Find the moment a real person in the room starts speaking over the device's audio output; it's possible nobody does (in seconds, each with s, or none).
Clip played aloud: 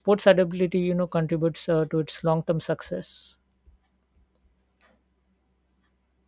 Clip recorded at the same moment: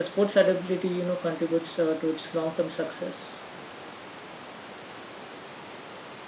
none